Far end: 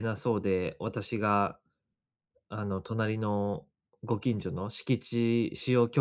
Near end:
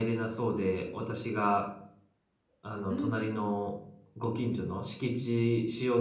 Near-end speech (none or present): present